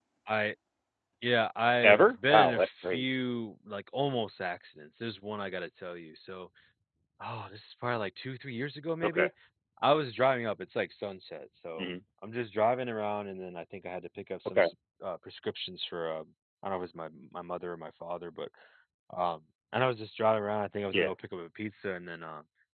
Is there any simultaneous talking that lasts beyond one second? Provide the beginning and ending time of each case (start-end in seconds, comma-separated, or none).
1.8-3.0